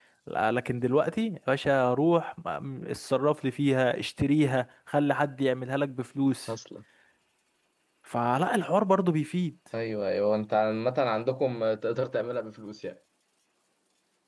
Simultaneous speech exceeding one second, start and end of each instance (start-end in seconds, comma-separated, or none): none